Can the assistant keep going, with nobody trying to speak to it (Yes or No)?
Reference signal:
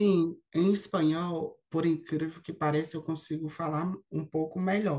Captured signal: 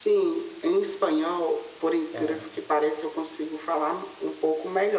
No